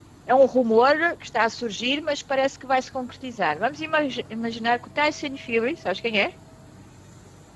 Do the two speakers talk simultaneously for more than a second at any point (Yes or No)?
No